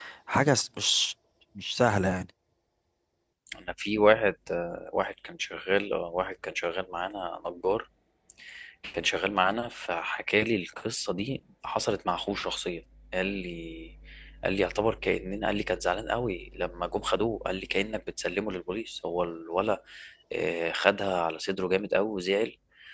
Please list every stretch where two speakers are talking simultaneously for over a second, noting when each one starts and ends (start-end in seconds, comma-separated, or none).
none